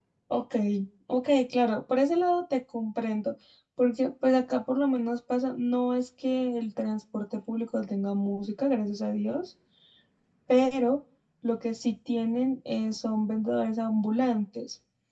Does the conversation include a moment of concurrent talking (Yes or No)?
No